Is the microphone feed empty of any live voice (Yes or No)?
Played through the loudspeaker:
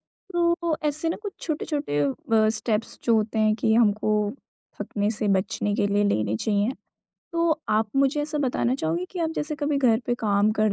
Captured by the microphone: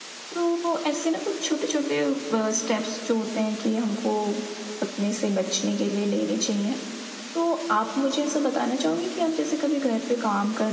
Yes